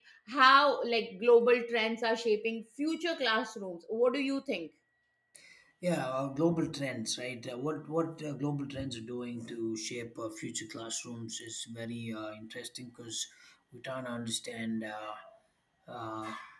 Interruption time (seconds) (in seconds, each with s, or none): none